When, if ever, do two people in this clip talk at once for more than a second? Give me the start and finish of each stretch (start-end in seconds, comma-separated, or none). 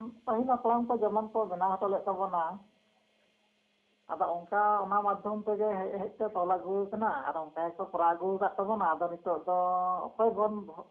none